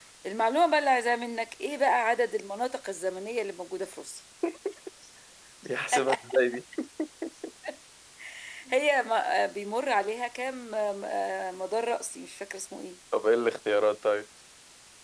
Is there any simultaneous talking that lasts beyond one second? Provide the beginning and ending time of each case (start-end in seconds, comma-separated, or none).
none